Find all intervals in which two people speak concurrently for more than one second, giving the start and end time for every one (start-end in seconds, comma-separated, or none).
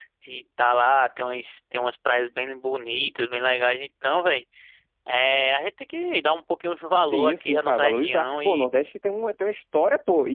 7.0-8.7